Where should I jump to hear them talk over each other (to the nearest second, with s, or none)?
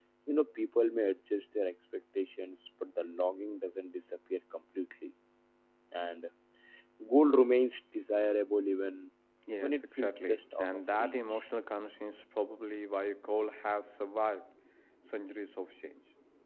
10 s